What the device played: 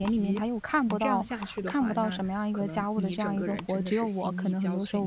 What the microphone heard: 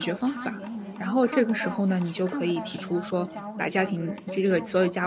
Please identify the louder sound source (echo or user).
user